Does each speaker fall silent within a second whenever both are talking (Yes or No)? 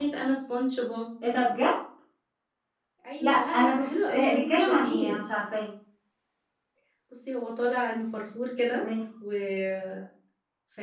No